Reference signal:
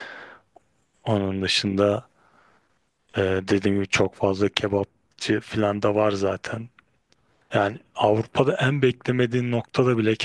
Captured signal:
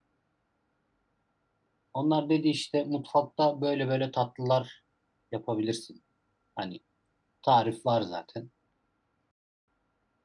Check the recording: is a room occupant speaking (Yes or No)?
Yes